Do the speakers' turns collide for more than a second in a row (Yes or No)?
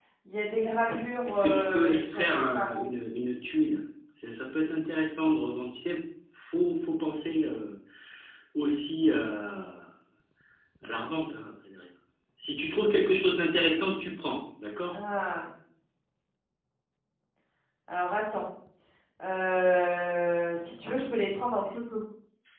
Yes